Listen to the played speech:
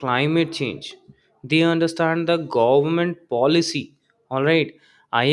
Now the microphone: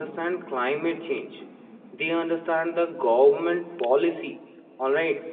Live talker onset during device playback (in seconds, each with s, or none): none